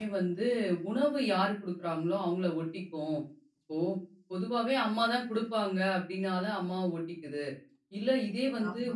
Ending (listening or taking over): listening